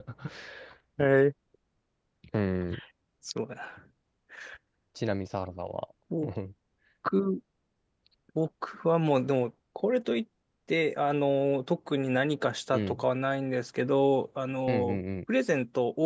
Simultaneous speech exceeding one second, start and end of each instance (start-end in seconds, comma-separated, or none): none